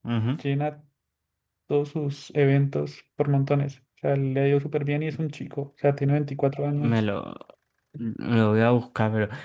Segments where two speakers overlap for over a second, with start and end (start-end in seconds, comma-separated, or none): none